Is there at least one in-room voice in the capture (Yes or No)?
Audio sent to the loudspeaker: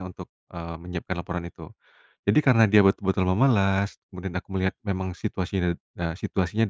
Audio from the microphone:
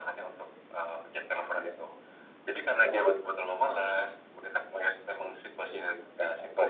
No